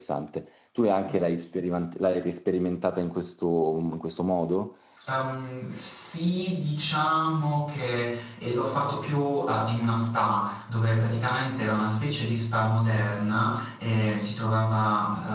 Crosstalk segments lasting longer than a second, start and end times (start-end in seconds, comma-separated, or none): none